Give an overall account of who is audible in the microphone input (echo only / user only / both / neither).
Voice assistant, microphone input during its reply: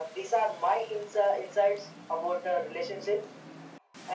echo only